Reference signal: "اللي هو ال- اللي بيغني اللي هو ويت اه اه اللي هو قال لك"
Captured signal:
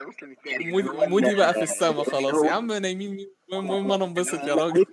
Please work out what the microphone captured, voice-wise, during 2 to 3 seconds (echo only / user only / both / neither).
both